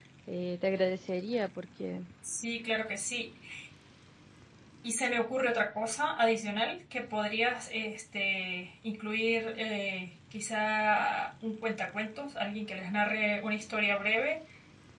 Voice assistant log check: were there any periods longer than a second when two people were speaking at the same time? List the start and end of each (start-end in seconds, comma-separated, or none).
none